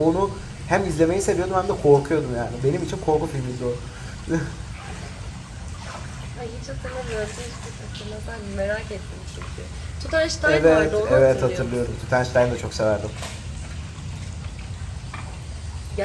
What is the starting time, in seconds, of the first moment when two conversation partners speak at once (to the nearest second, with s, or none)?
10 s